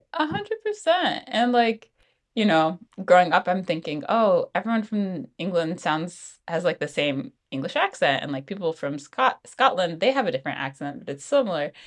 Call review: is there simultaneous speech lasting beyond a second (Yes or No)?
No